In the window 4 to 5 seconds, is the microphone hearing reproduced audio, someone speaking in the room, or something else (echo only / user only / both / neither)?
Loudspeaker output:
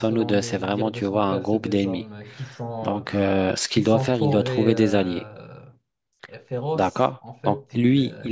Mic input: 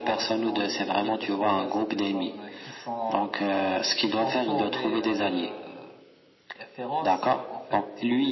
echo only